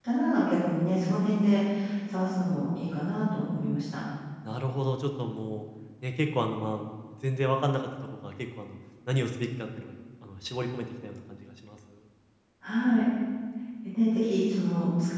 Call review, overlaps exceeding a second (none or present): none